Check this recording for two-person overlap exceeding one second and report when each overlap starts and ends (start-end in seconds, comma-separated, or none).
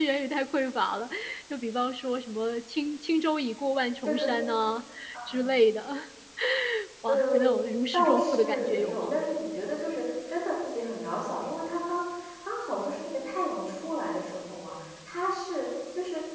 7.1-9.2